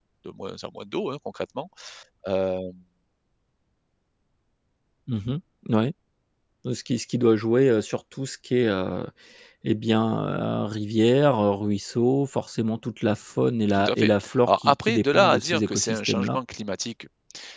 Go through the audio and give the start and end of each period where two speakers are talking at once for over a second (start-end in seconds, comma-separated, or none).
13.7-16.4